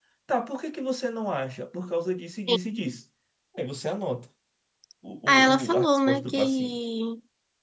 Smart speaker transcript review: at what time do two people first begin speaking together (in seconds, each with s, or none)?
5.3 s